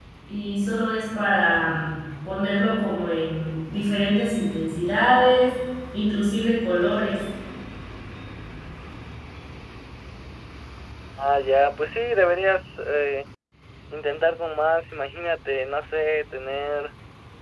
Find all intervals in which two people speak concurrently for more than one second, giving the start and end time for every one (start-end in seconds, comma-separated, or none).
none